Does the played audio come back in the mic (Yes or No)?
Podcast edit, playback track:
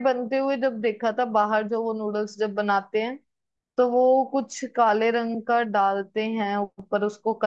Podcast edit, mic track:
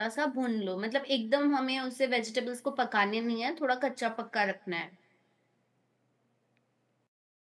No